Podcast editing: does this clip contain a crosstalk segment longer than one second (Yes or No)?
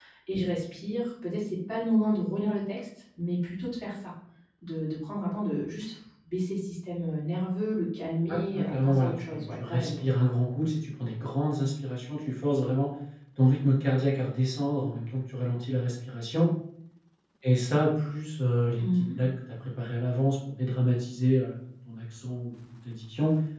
Yes